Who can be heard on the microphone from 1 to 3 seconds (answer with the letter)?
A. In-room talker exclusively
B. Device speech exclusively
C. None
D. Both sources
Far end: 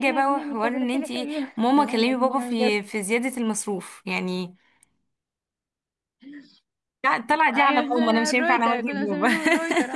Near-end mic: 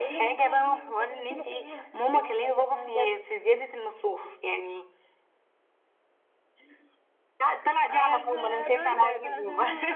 B